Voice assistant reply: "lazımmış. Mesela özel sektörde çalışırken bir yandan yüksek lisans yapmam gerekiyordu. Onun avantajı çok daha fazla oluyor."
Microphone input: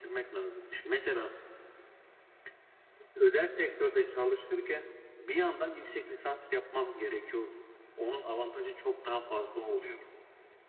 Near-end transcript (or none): none